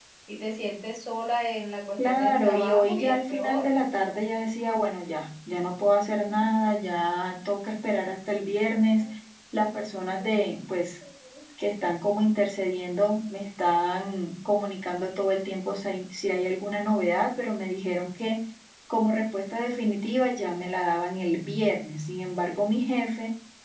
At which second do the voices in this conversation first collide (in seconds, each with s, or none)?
2.0 s